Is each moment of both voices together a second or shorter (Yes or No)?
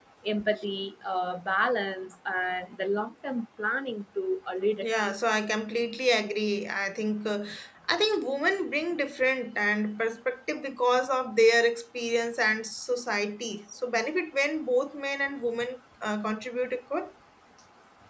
Yes